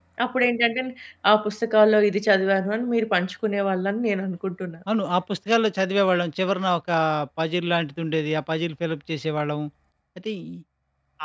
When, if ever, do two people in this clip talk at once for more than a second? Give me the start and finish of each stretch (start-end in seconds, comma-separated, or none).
none